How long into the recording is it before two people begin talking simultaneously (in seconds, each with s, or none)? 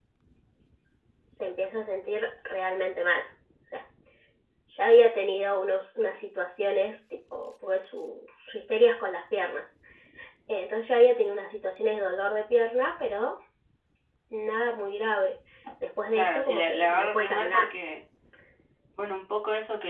16.1 s